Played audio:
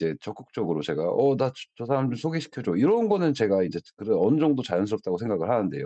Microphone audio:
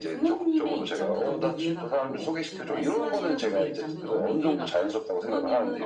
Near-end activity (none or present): present